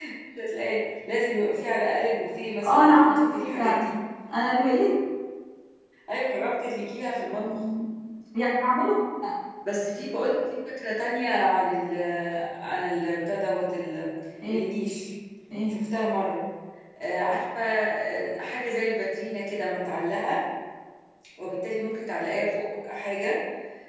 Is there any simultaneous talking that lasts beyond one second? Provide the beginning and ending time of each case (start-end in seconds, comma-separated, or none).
2.6-3.8